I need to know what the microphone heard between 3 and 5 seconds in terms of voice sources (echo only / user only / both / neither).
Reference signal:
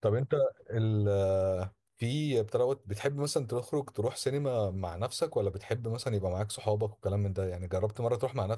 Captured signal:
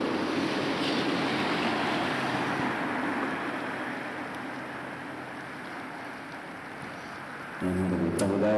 neither